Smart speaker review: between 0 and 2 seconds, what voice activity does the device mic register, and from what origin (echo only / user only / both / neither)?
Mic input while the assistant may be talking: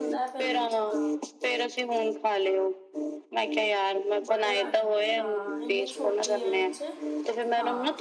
both